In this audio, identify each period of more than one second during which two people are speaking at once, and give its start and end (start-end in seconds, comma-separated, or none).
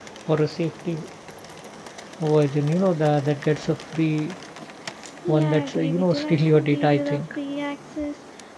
5.3-7.2